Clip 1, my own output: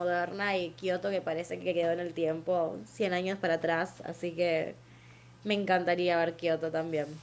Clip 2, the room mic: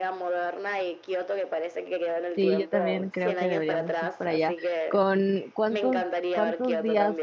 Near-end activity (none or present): present